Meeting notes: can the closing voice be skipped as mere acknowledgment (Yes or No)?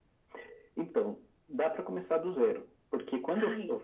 Yes